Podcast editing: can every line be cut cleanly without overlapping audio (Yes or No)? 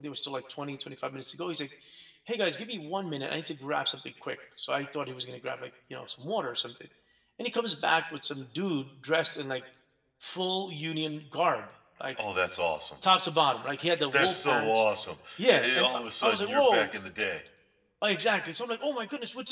No